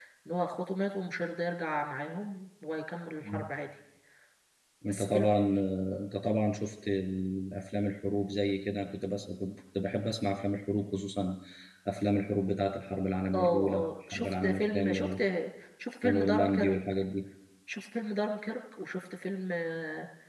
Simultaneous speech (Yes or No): Yes